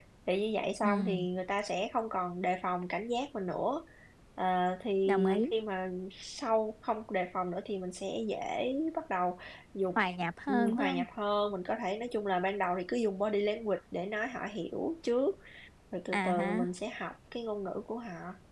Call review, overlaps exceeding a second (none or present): none